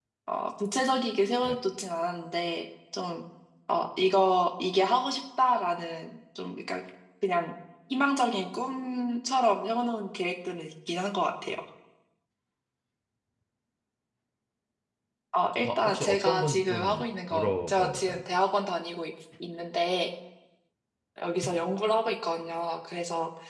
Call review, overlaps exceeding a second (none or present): present